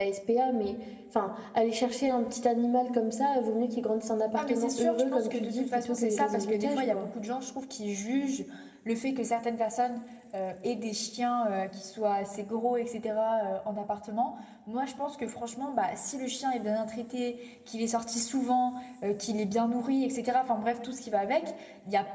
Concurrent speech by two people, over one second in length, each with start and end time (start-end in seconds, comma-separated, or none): 4.3-7.1